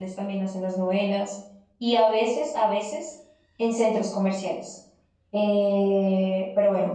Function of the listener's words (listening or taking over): listening